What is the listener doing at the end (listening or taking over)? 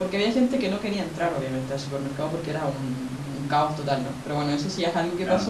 listening